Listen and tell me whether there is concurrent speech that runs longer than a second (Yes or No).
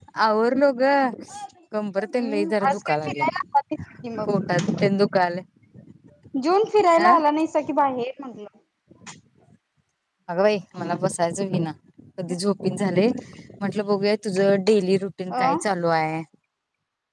Yes